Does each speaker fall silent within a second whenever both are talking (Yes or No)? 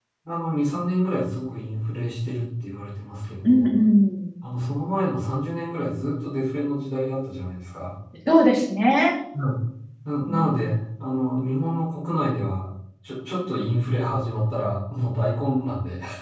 Yes